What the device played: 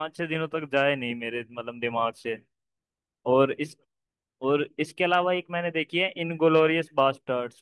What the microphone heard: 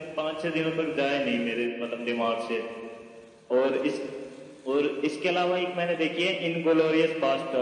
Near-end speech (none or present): none